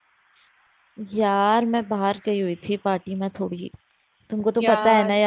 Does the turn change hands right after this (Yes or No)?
No